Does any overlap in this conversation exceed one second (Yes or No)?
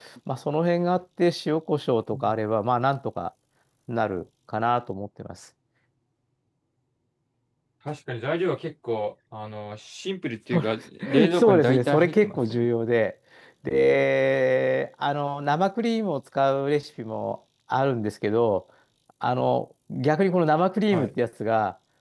Yes